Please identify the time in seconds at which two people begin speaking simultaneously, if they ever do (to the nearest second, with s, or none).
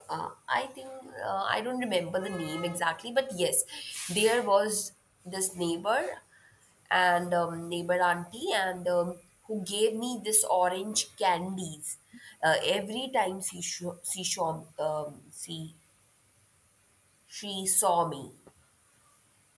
none